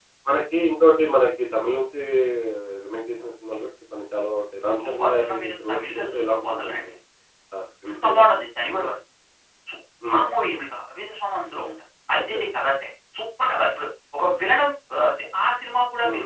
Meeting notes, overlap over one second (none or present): present